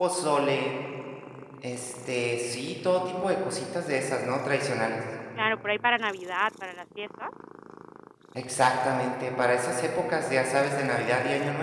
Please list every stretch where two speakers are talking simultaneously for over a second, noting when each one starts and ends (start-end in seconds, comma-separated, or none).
none